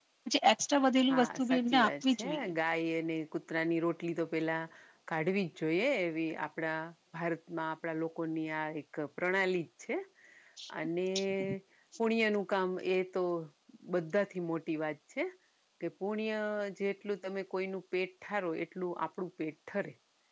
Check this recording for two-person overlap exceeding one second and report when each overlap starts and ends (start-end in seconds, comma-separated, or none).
1.1-2.5